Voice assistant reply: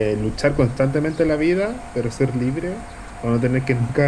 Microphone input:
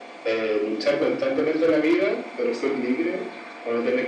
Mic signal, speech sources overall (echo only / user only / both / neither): echo only